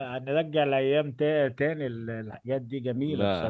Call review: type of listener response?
taking over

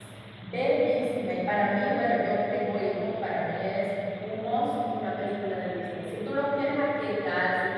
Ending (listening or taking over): listening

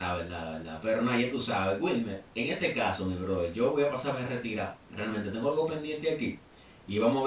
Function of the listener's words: listening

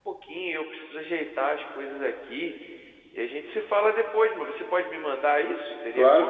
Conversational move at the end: taking over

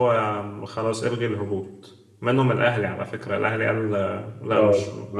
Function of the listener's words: taking over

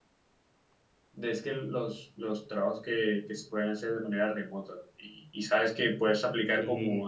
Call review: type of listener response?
listening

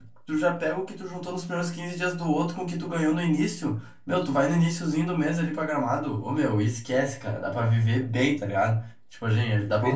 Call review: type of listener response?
listening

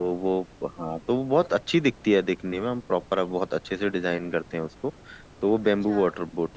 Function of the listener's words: listening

